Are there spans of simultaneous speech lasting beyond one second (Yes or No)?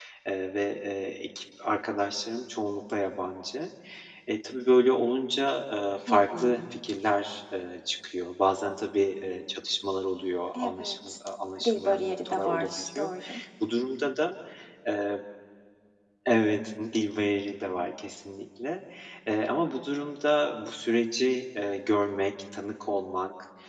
Yes